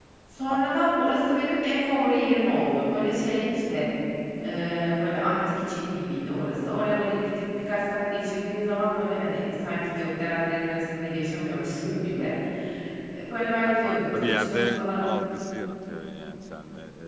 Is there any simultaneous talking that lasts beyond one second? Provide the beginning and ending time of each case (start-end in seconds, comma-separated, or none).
13.6-15.1